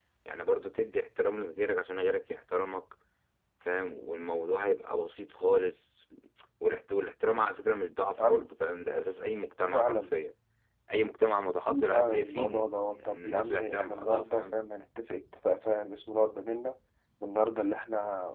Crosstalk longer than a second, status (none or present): present